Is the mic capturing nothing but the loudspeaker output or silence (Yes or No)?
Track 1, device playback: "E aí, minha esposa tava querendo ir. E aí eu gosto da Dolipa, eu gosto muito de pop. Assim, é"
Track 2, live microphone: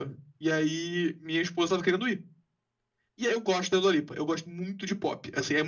Yes